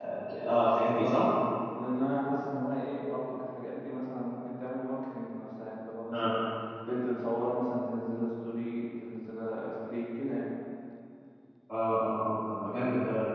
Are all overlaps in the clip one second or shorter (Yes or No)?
Yes